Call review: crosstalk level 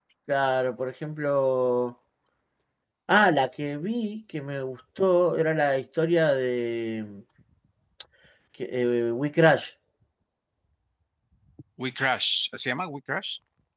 none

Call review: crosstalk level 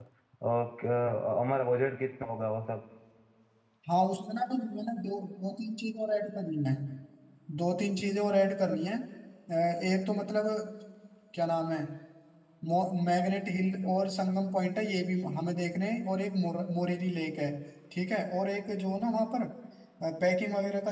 none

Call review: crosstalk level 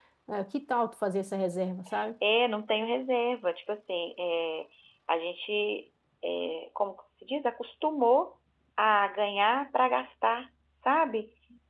none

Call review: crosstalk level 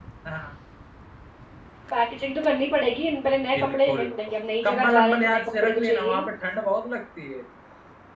present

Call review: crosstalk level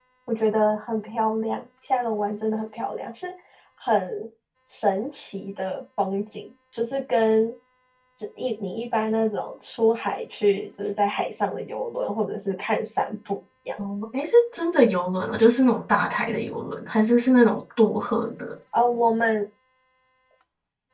none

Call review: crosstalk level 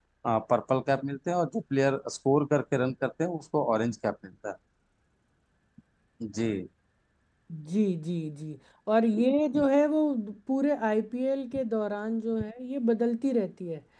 none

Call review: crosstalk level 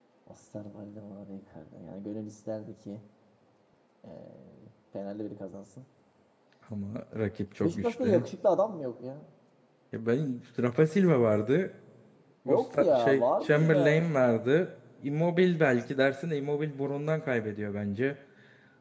present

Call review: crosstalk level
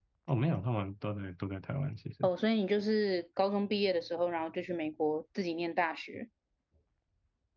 none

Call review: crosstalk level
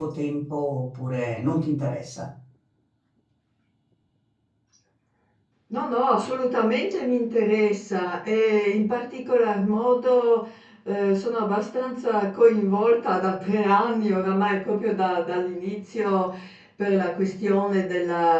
none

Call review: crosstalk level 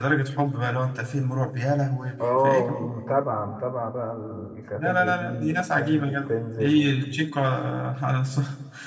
present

